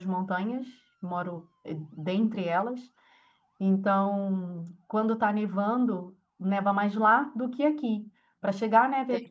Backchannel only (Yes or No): Yes